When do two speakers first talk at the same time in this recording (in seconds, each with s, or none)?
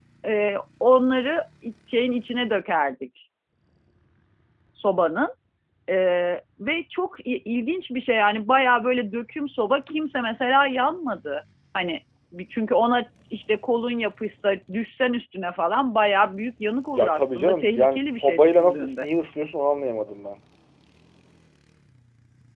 16.9 s